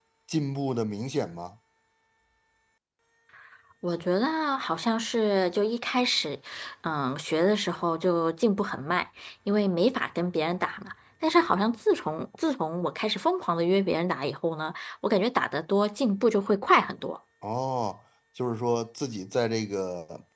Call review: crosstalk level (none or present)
none